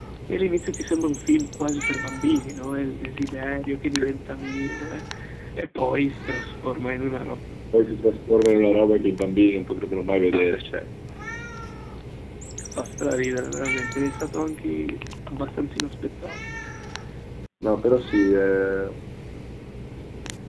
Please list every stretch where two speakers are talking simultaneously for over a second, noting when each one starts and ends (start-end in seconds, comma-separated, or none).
none